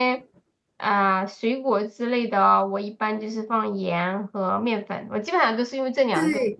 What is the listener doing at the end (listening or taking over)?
taking over